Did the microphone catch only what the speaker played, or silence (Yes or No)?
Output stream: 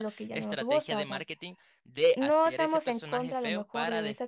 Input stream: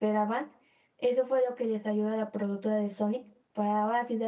No